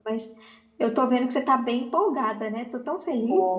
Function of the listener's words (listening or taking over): taking over